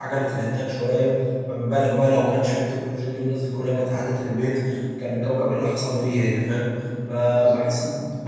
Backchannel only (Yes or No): Yes